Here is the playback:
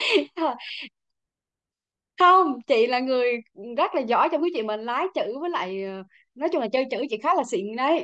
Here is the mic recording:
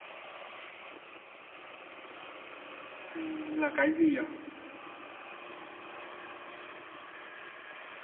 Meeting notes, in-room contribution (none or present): present